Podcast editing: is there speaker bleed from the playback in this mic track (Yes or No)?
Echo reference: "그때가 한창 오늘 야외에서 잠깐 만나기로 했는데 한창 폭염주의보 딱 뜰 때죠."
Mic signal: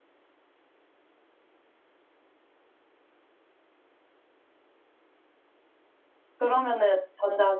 No